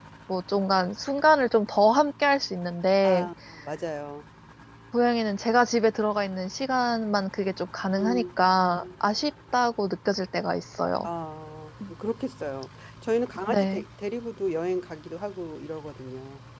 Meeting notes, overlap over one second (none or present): none